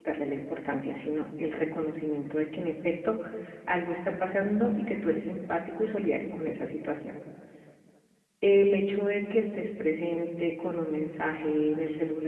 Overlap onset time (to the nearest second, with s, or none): none